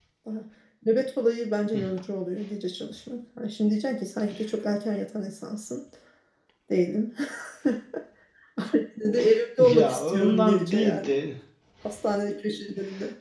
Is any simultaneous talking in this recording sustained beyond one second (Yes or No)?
Yes